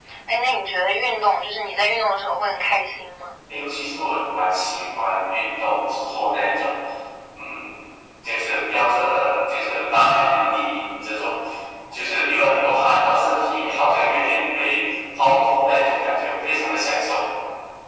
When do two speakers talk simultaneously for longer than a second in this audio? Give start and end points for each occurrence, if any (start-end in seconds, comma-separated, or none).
none